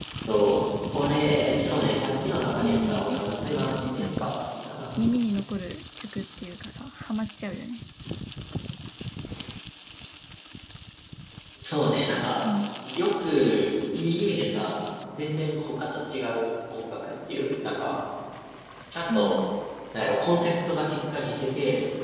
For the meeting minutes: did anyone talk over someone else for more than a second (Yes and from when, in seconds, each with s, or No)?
Yes, from 2.6 s